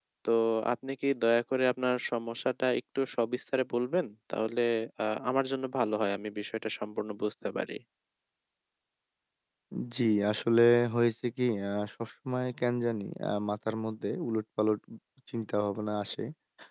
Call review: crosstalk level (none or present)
none